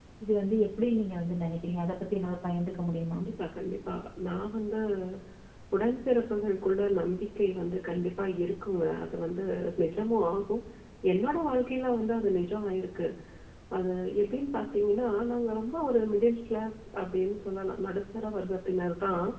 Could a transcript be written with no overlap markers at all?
Yes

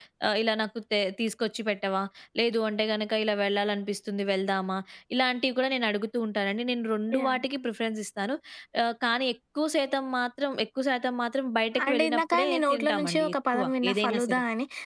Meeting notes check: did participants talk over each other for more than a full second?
Yes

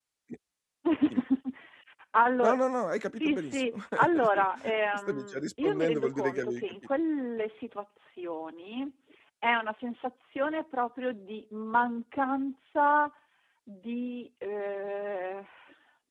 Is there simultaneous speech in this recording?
Yes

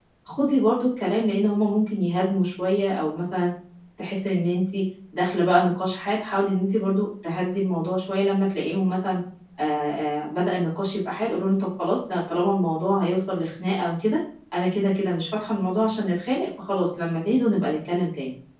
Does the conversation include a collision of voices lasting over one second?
No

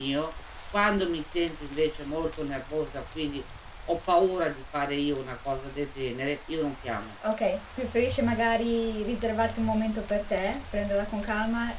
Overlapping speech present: No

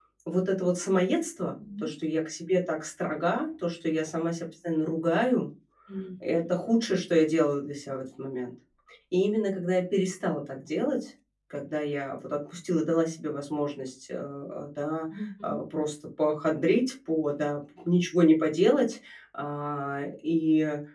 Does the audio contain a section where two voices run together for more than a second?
No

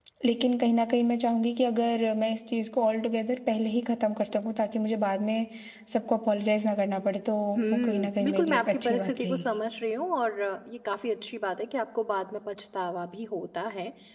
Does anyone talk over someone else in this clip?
Yes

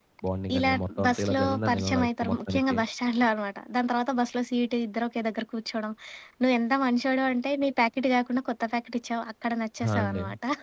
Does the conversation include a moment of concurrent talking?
Yes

